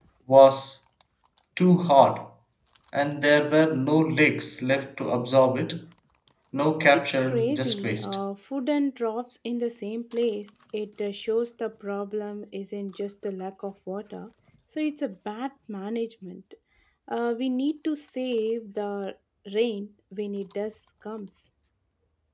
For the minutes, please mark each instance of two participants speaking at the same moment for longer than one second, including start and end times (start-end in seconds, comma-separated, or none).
6.9-8.2